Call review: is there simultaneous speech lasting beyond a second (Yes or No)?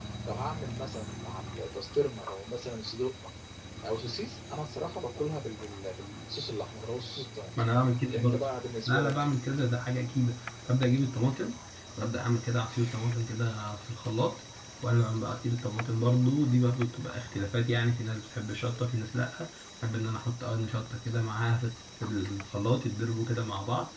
No